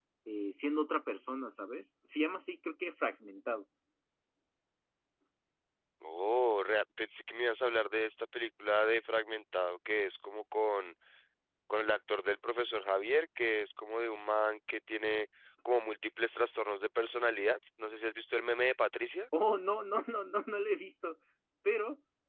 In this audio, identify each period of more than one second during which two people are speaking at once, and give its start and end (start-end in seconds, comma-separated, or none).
none